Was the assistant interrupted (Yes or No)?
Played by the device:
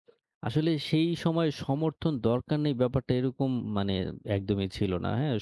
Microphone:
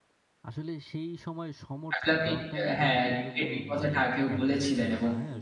Yes